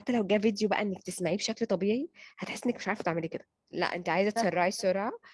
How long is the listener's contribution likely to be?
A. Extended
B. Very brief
B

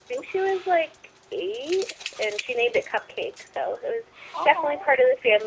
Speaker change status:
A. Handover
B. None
B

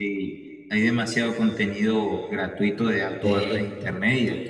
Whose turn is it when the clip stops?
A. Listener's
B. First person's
B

